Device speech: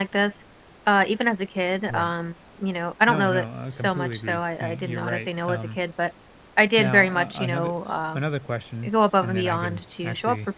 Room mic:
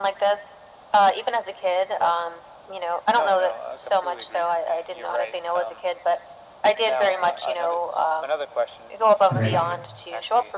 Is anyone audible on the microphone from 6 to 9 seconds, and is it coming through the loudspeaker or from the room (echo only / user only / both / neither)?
echo only